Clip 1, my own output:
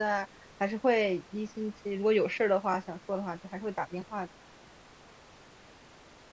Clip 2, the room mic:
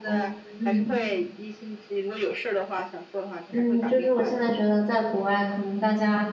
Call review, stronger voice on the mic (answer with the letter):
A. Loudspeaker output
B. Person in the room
B